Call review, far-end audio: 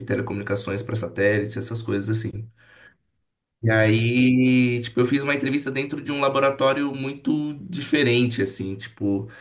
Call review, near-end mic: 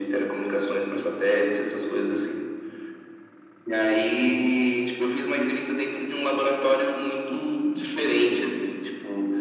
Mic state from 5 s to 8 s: echo only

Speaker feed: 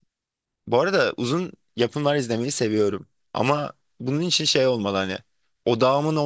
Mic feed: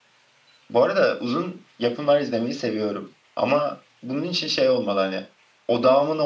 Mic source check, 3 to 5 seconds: echo only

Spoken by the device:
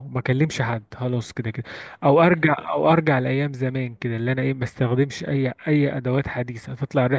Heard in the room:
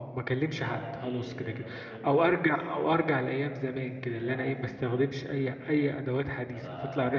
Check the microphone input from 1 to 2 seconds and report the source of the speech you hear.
both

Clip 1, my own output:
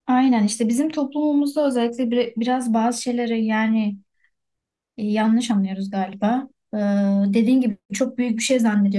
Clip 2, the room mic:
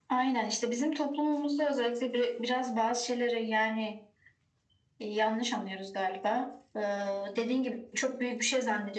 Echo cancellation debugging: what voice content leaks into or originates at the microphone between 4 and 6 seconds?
echo only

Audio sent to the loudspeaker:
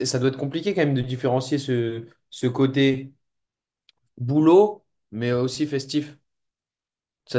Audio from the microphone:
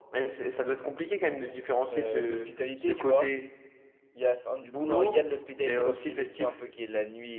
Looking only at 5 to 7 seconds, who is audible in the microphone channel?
both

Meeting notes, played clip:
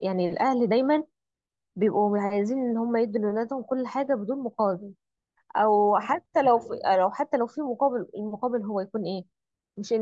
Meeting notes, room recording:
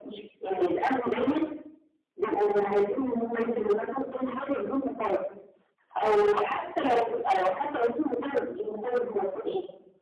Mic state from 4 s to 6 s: echo only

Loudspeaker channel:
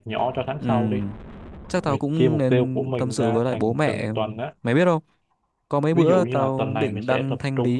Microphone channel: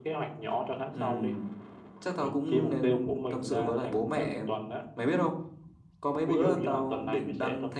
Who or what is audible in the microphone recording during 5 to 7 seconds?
echo only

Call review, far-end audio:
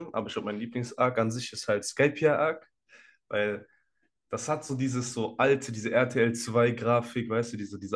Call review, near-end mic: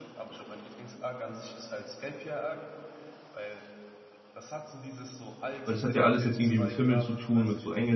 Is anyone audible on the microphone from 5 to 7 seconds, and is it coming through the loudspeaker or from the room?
both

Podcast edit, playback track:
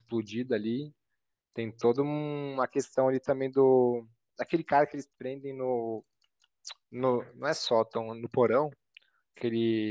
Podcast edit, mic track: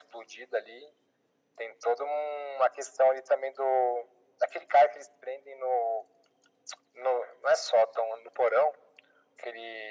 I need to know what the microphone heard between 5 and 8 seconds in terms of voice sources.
echo only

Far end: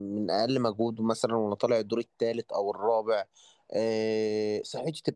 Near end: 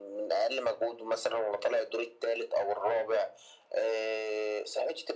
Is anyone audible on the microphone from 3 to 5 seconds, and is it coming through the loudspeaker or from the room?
echo only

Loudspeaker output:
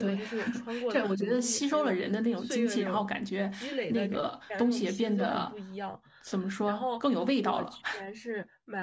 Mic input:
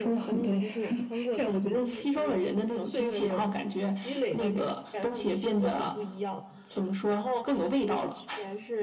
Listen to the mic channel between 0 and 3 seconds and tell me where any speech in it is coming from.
echo only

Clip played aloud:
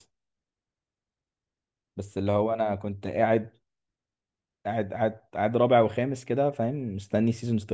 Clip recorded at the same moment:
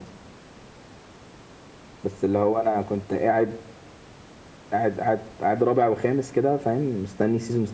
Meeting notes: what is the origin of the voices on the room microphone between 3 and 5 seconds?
echo only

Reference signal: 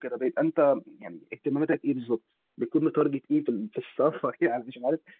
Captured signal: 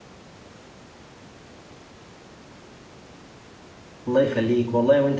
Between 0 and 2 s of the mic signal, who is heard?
neither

